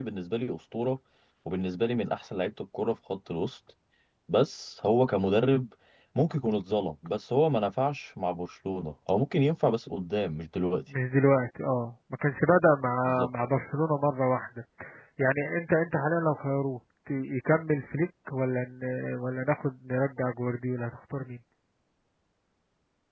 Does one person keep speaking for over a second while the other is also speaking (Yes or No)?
No